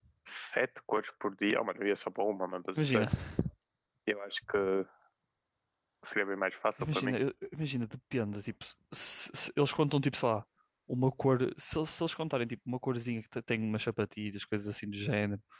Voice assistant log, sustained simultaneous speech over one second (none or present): none